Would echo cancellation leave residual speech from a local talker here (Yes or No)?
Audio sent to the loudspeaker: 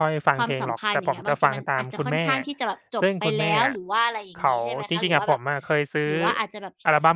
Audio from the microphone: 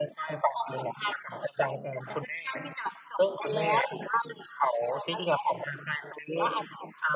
No